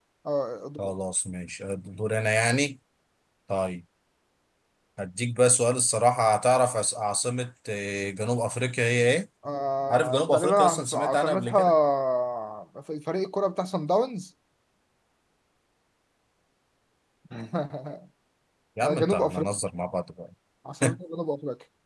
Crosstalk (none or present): present